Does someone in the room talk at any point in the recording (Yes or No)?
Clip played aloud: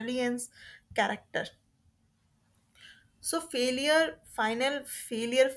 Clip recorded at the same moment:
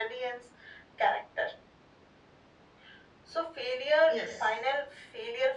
Yes